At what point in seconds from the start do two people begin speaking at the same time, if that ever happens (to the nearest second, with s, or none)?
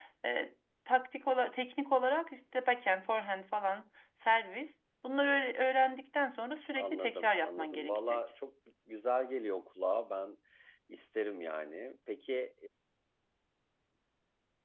7 s